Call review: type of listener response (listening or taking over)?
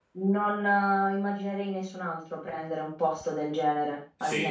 taking over